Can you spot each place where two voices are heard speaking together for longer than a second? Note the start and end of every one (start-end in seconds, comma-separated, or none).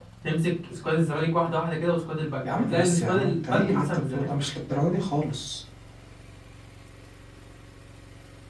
2.4-4.3